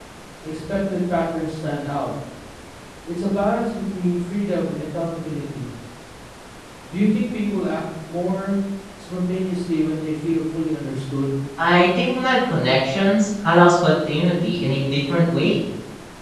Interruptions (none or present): none